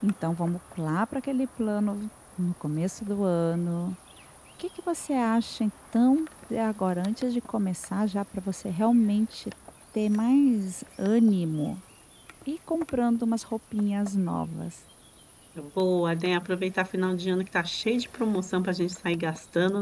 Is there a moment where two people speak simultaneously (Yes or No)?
No